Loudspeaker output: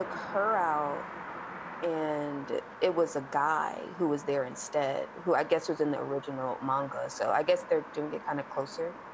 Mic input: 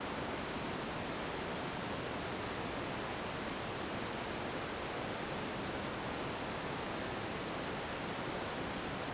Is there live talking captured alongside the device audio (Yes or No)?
No